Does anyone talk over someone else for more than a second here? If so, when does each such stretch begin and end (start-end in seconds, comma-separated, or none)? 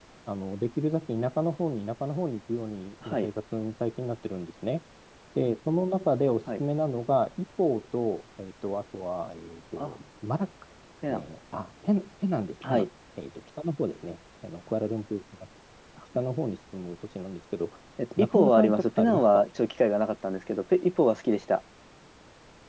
18.2-19.5